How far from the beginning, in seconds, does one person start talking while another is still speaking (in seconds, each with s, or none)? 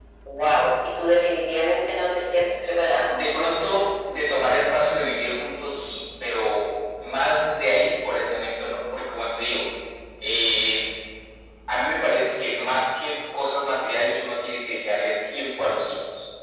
none